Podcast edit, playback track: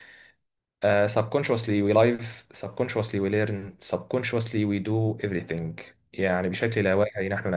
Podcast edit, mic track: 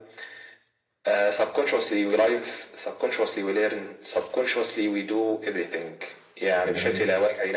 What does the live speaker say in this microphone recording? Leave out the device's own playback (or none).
جميل